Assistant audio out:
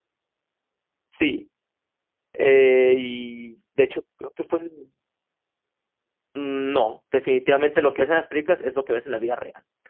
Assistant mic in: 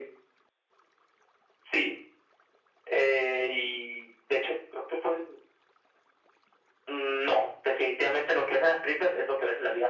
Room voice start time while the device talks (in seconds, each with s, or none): none